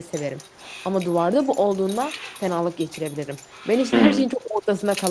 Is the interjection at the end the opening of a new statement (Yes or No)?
No